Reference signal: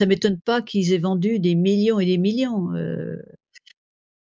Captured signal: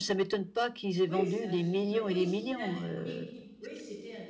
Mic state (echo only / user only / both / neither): both